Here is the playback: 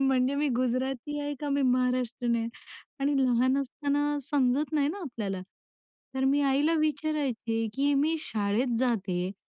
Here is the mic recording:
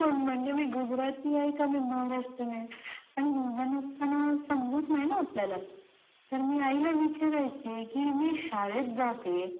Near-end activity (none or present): none